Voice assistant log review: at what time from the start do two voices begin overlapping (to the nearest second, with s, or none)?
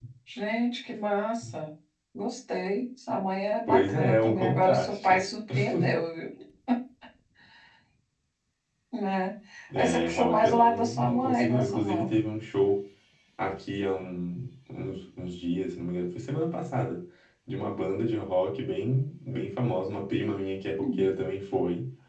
4 s